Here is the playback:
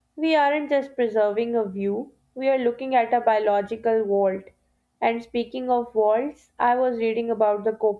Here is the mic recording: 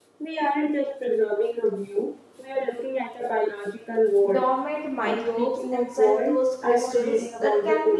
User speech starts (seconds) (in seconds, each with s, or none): 4.3 s